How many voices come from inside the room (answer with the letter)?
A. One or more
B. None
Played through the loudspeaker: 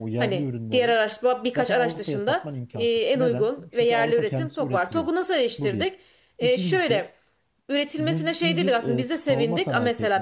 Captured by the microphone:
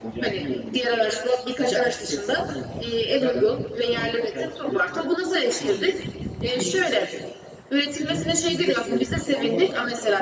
B